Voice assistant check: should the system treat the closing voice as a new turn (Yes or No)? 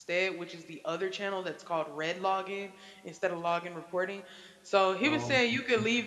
No